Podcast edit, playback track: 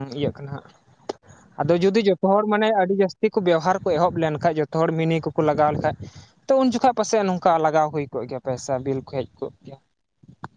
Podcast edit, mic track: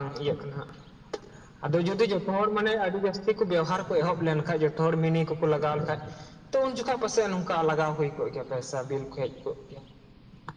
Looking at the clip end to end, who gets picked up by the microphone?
echo only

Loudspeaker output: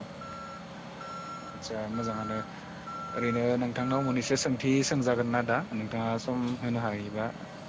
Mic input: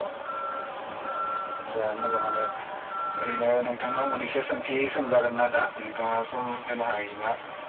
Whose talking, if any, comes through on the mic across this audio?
echo only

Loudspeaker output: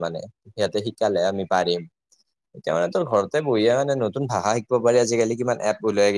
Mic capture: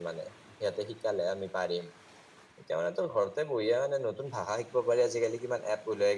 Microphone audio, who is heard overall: echo only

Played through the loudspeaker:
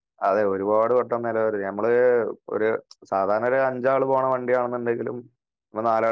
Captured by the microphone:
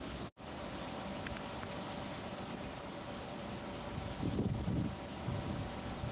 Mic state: neither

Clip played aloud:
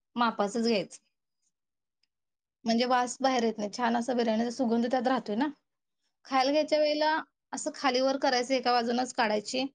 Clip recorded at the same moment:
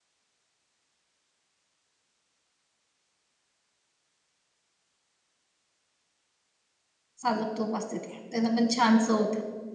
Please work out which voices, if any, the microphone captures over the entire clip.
user only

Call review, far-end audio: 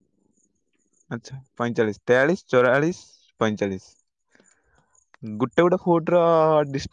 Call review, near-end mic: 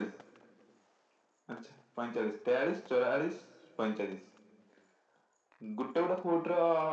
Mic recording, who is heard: echo only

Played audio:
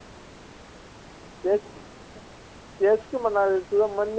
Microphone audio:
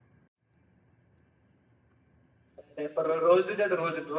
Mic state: user only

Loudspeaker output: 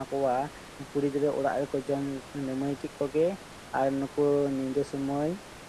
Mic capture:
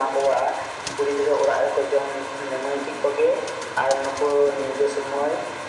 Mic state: echo only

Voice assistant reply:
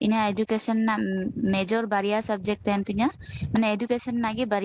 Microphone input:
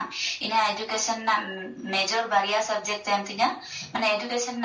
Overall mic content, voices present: echo only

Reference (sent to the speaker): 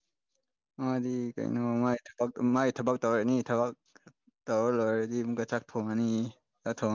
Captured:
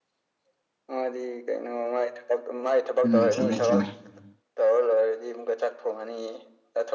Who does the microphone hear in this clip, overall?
both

